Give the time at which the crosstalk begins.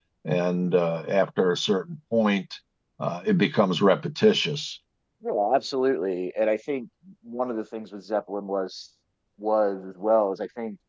none

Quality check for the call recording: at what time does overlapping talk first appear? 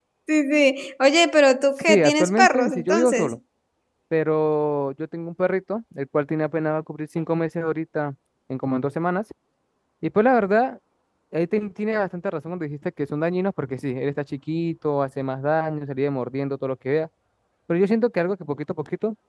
1.8 s

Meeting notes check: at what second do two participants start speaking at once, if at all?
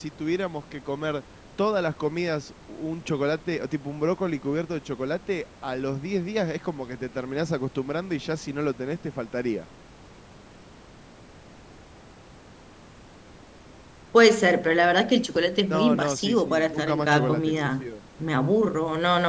15.7 s

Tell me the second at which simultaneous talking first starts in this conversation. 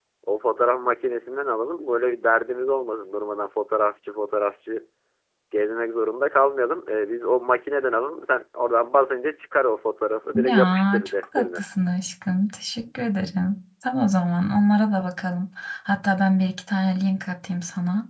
10.3 s

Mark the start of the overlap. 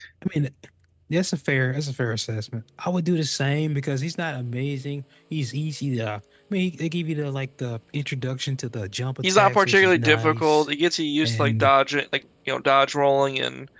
9.2 s

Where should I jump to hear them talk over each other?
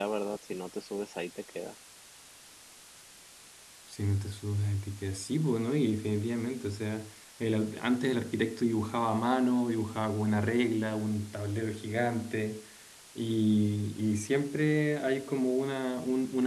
none

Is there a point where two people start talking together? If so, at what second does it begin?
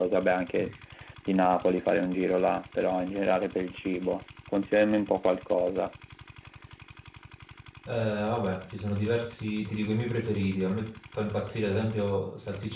none

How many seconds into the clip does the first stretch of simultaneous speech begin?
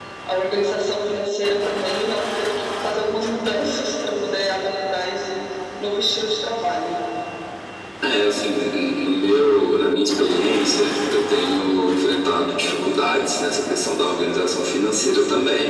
none

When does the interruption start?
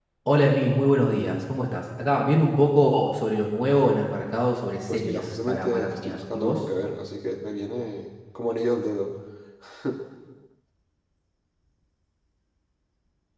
4.9 s

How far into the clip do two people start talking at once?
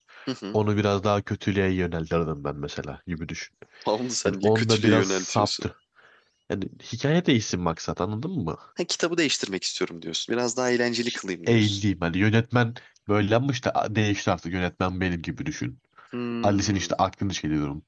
4.2 s

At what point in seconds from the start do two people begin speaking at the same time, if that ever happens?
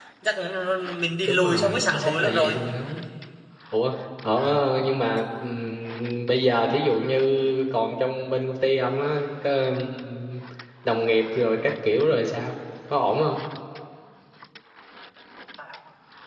1.2 s

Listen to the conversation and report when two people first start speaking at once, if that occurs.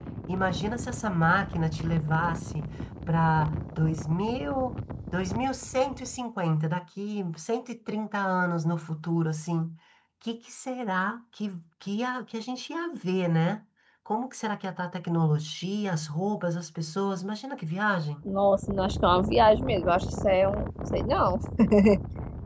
none

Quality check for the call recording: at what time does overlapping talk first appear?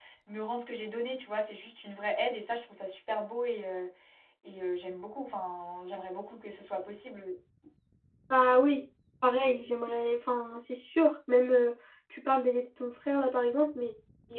none

